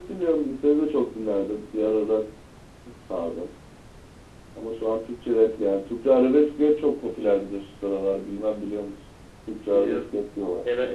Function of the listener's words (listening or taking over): taking over